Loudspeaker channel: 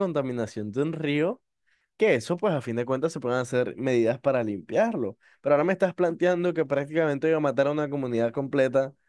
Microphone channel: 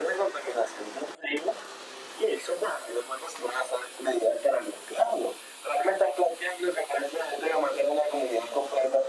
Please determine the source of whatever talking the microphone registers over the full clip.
echo only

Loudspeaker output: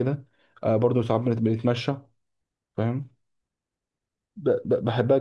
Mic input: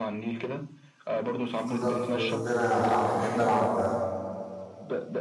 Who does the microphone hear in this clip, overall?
both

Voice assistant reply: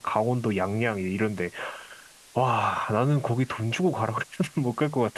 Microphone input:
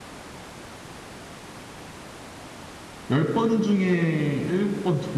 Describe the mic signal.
user only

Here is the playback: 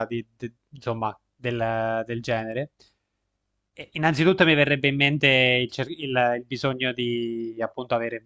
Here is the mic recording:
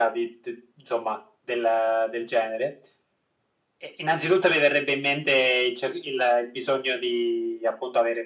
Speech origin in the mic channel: echo only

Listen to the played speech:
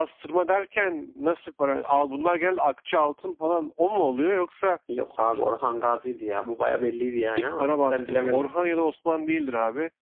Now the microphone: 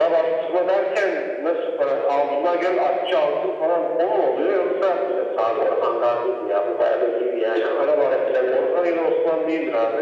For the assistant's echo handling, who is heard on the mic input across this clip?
echo only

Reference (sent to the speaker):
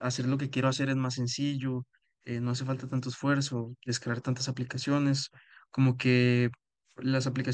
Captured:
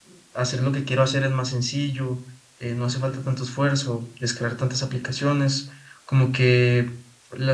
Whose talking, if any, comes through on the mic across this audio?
echo only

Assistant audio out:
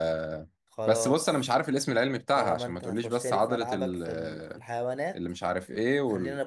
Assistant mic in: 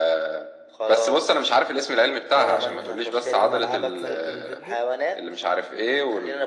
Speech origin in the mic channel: both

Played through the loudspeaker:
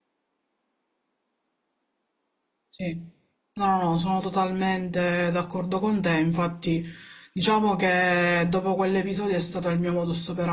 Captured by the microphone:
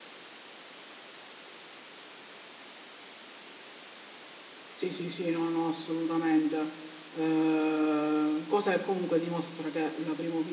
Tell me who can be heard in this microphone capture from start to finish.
user only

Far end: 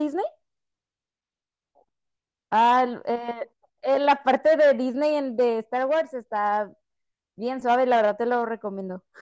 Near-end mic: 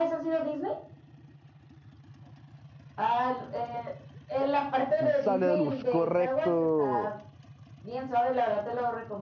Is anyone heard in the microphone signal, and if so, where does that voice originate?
both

